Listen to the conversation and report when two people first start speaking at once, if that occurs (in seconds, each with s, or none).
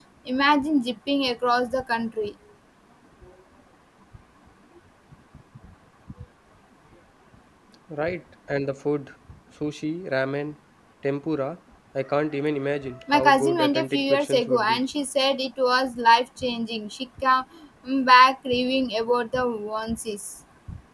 13.1 s